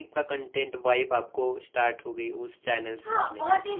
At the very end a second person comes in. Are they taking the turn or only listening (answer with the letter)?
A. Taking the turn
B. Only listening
A